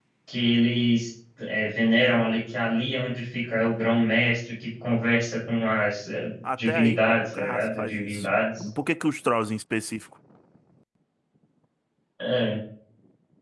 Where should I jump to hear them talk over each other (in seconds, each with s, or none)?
6.4 s